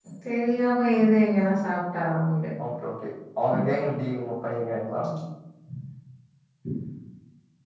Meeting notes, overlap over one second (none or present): none